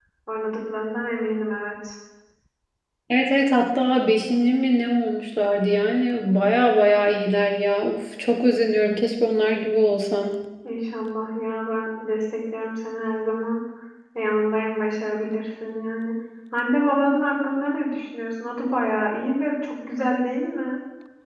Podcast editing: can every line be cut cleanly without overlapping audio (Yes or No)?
Yes